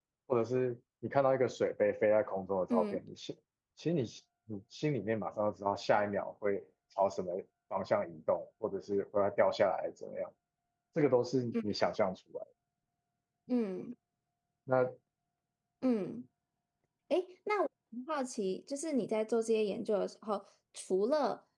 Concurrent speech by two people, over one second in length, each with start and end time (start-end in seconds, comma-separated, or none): none